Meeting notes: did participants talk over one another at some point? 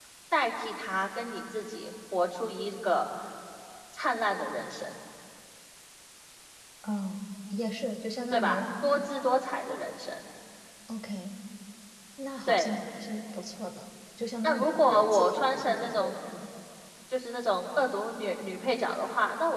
Yes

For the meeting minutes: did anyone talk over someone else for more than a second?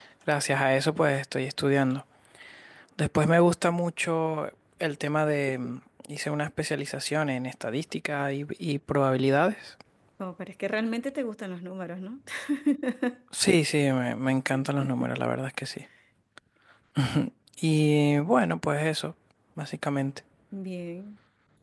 No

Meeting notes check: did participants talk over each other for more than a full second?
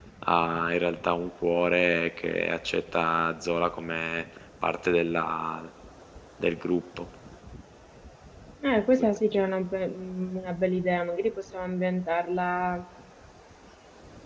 No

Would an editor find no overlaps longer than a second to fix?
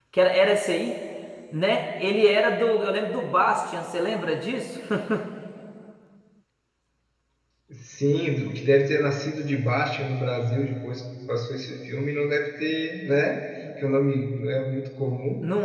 Yes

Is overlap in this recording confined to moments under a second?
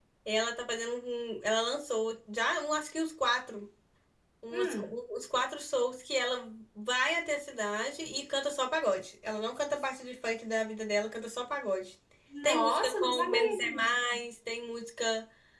No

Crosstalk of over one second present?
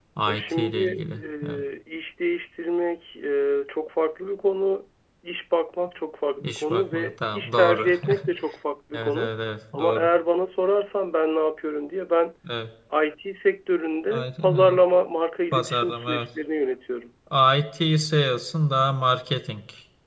Yes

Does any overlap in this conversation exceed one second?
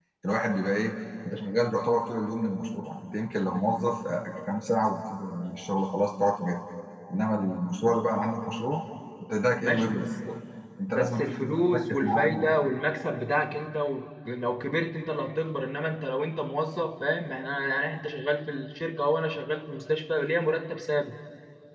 Yes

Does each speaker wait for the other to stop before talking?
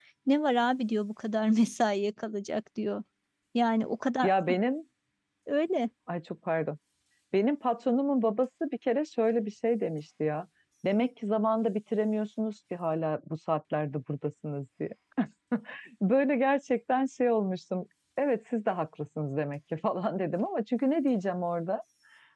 Yes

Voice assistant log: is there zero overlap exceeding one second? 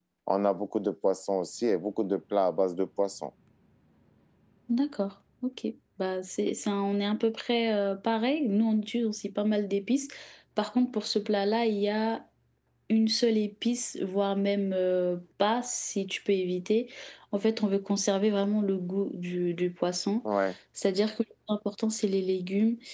Yes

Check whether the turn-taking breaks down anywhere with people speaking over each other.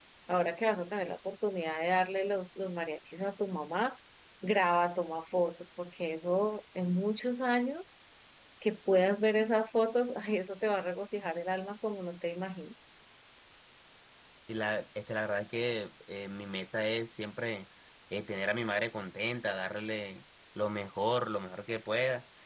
No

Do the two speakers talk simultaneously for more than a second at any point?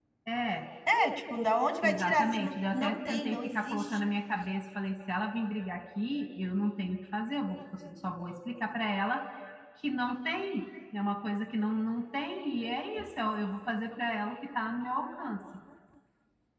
Yes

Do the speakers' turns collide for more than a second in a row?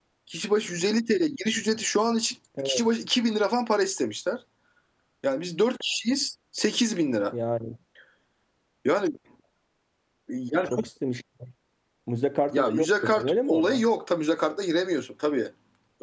Yes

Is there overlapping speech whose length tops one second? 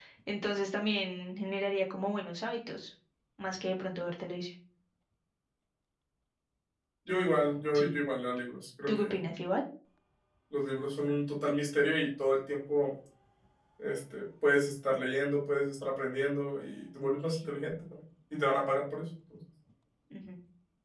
No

